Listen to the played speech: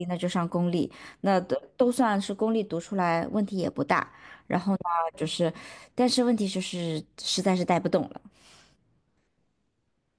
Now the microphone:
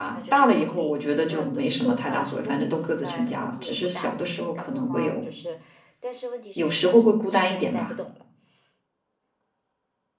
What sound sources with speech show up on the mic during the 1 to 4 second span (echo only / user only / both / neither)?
both